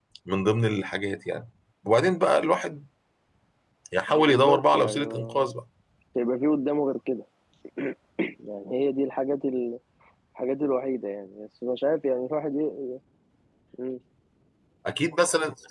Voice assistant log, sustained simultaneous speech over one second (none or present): present